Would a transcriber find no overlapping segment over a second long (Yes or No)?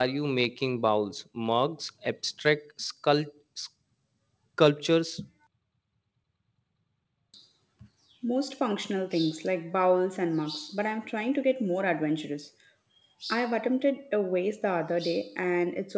Yes